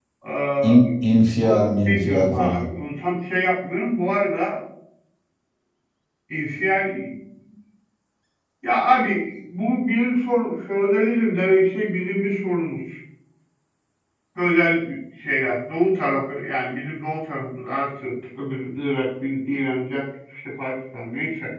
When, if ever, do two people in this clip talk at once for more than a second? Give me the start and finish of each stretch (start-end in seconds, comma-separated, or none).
1.4-2.7